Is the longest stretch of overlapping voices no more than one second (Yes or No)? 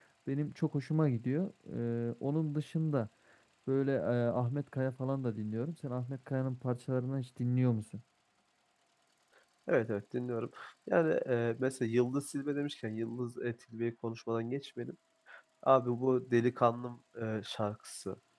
Yes